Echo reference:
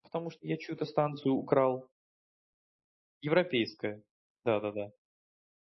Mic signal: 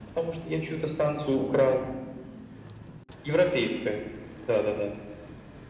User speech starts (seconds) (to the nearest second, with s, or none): none